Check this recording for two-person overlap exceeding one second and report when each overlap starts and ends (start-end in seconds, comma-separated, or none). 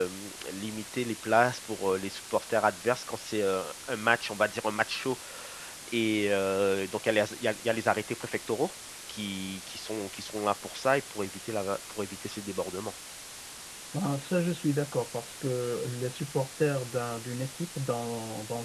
none